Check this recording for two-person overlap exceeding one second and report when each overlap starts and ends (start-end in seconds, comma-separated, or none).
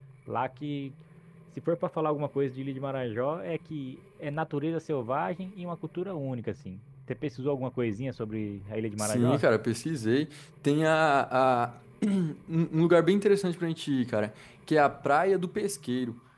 none